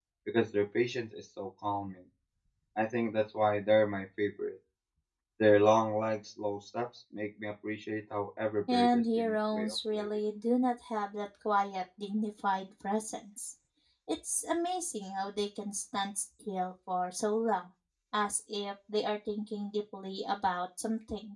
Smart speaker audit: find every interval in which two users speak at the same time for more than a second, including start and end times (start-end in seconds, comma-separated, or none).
8.7-10.1